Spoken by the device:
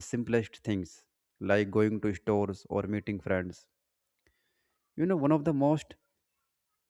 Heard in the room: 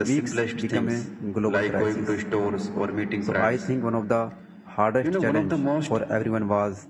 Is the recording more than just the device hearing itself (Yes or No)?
Yes